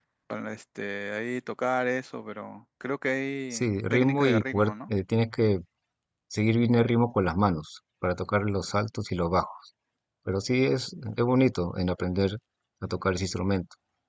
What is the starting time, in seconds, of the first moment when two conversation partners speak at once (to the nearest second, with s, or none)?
4 s